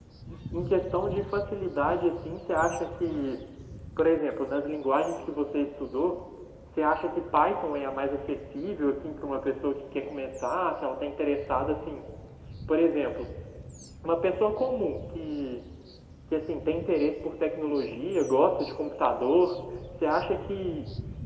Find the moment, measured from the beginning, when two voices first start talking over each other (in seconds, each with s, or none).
none